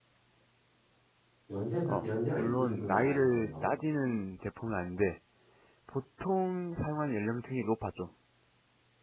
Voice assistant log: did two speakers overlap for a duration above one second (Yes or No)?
Yes